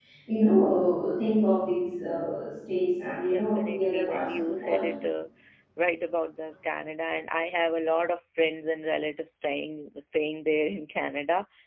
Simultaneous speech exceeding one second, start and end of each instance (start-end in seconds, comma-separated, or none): 3.3-4.9